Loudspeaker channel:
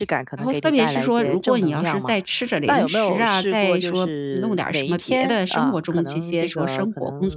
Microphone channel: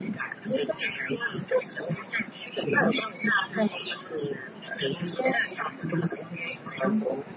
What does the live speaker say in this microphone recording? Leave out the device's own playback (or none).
none